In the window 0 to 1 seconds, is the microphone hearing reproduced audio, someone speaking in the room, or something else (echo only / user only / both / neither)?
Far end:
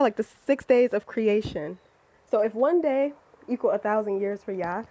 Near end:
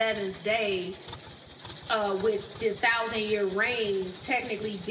user only